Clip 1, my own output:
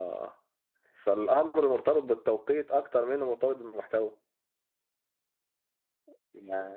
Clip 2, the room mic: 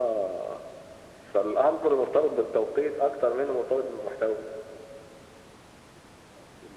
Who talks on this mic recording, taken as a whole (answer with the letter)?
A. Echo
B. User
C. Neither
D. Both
A